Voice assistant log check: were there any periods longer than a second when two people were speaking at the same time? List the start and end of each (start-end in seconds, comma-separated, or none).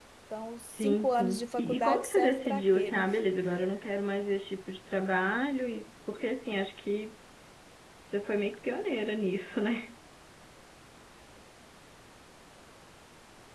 0.7-3.0